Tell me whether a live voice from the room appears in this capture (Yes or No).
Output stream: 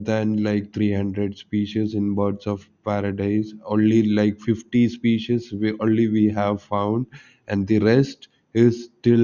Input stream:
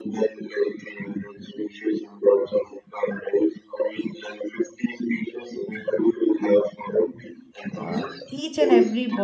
Yes